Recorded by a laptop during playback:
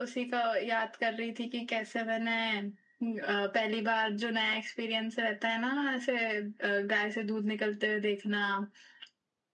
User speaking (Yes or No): No